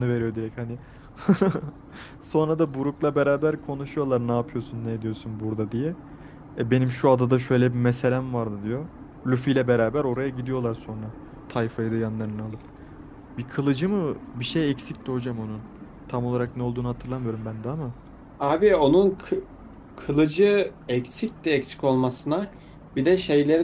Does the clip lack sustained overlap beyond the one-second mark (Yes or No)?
Yes